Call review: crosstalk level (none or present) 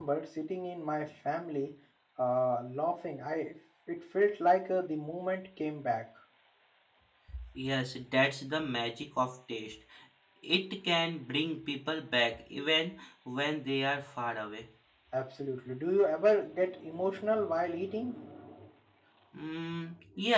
none